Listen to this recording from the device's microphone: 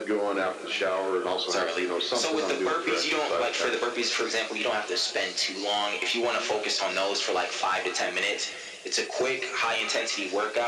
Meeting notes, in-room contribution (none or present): none